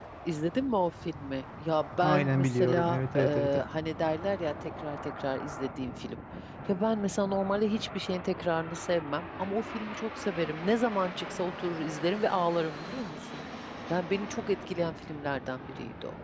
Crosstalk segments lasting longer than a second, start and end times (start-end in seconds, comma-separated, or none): 2.0-3.6